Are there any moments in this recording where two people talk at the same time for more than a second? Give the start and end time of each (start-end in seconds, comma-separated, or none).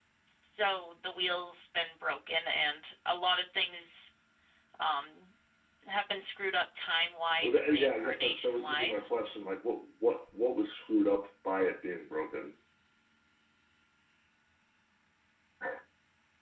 7.4-9.1